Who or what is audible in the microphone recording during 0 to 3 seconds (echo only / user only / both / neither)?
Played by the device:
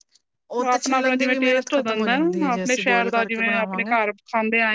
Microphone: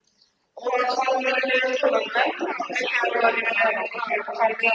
echo only